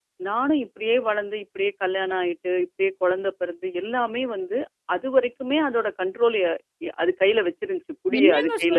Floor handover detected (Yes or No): Yes